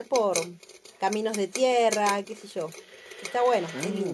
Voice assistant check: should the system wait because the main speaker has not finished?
No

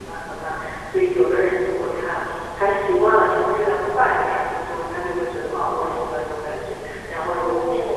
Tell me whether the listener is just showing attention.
No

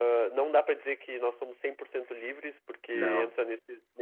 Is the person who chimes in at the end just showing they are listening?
Yes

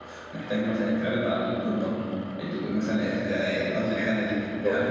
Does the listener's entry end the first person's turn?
No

